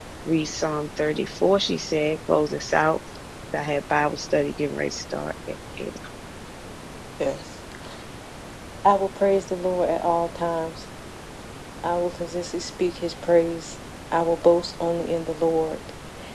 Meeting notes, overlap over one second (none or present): none